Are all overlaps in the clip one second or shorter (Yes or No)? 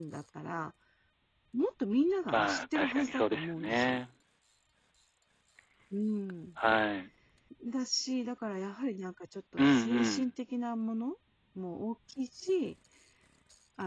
No